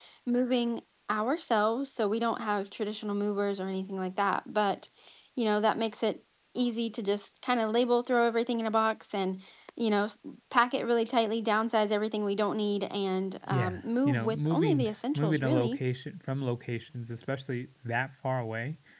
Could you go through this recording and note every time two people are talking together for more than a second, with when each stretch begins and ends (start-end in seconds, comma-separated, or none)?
13.5-15.8